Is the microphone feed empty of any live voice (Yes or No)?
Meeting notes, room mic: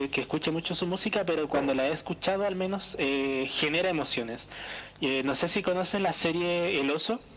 Yes